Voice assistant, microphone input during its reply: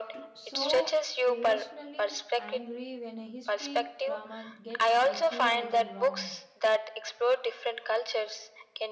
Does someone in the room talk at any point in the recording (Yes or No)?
Yes